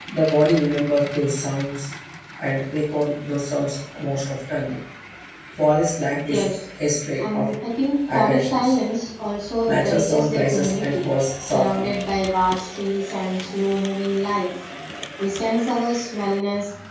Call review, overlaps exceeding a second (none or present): present